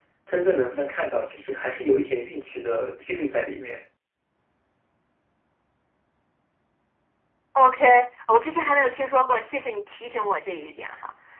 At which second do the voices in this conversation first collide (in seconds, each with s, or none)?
none